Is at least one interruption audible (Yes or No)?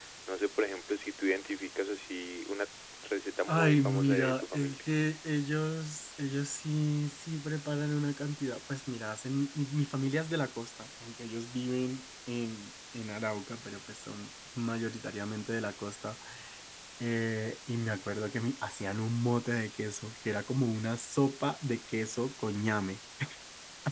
Yes